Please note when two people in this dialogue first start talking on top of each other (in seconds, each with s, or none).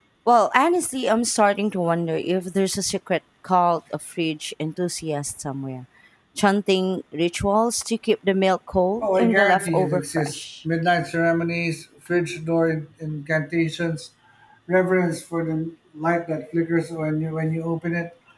9.0 s